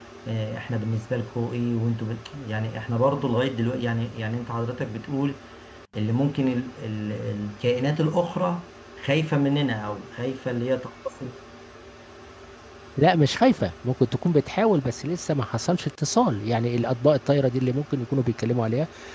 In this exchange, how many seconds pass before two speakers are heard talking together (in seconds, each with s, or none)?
none